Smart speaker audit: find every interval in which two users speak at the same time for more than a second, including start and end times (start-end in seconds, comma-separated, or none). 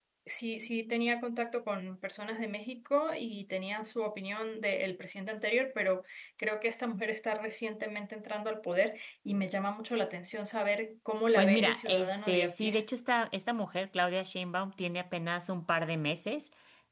11.3-12.8